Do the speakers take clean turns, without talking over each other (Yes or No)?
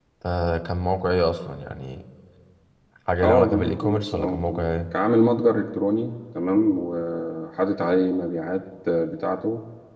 No